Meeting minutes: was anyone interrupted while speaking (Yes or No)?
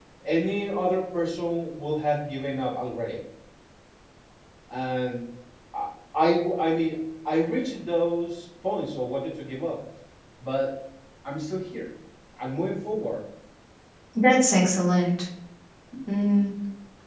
No